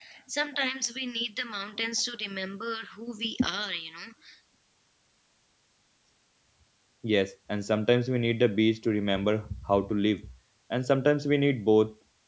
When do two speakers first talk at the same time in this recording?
none

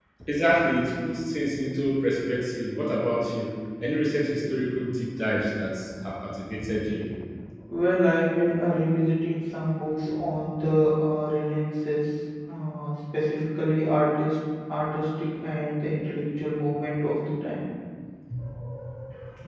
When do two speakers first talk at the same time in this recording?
none

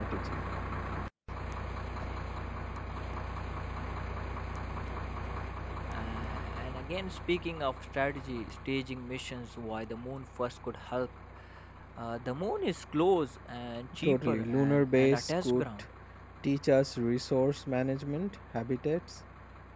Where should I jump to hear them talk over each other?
14.0 s

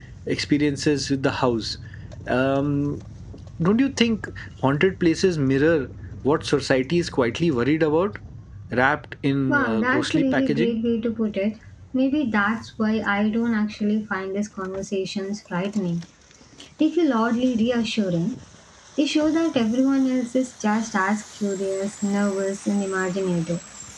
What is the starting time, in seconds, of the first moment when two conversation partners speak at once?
9.5 s

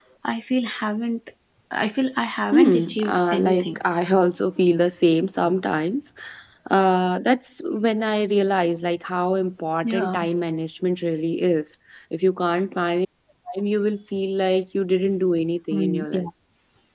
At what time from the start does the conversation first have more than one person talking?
2.5 s

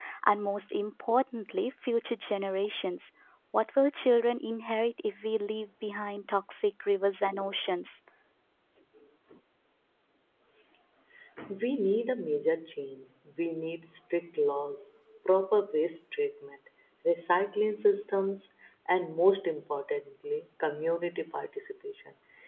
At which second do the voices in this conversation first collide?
none

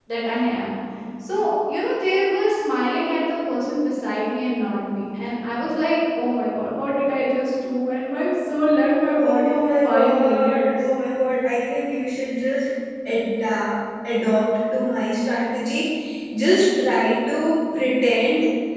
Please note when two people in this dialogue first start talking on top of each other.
9.2 s

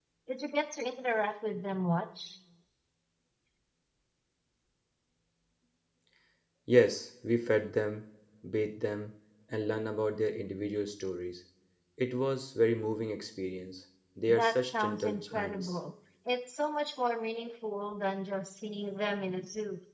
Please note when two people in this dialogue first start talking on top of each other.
14.3 s

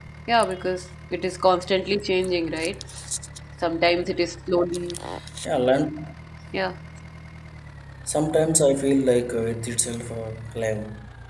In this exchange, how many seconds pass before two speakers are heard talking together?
none

